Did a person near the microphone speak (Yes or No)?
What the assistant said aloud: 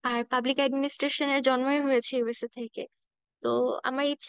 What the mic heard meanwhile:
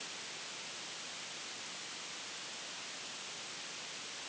No